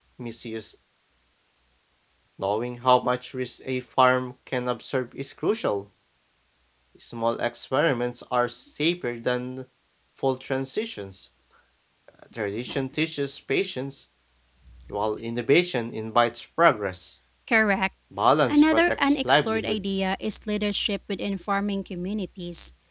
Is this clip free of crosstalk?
No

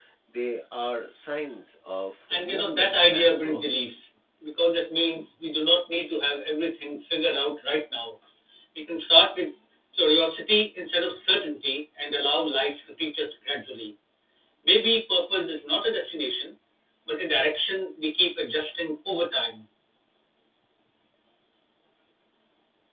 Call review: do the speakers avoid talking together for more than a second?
No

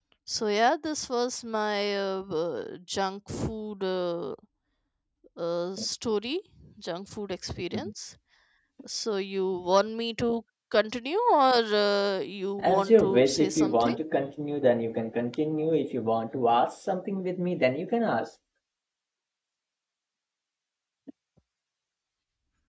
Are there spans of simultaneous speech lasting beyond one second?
Yes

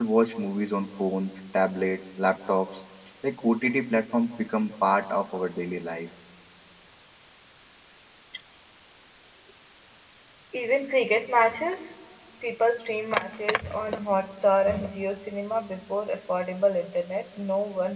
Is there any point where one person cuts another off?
No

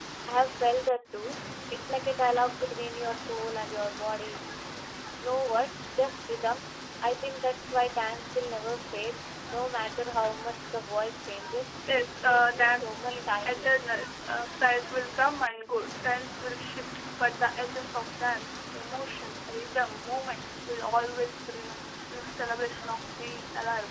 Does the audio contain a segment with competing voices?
Yes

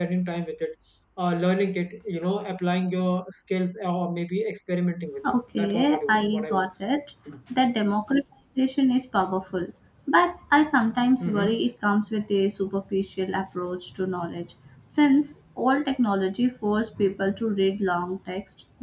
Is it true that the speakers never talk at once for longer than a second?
No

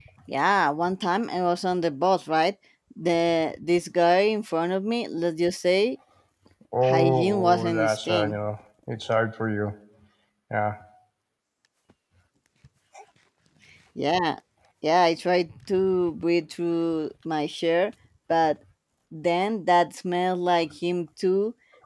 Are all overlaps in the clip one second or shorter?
No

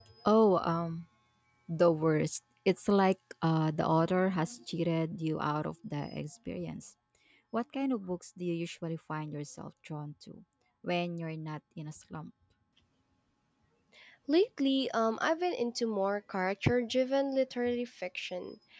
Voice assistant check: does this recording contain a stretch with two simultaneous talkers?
No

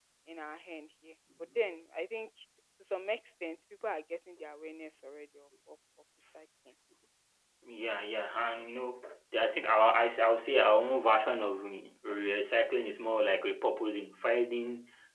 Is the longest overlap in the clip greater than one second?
No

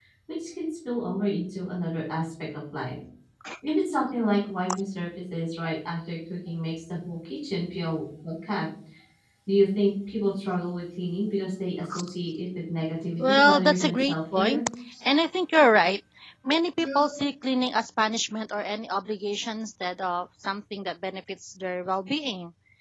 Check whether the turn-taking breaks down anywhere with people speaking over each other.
Yes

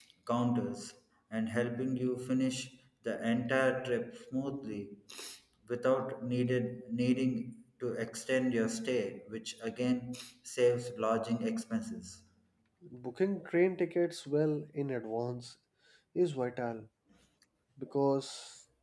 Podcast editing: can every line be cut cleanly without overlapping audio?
Yes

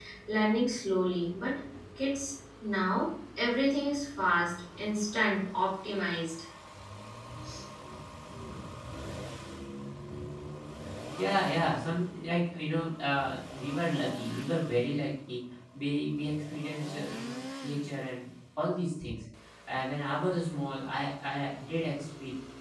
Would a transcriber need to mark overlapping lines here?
No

